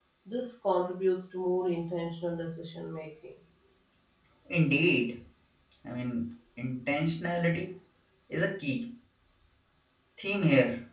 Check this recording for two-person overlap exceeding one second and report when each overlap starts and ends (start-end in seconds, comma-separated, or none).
none